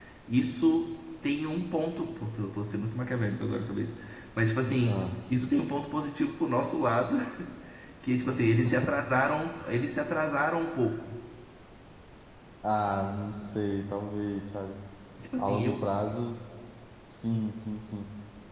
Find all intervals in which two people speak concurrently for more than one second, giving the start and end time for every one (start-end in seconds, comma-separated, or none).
none